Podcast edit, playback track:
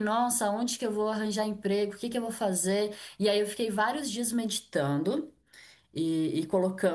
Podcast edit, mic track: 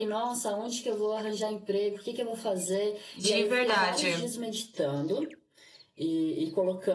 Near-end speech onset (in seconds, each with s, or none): 3.1 s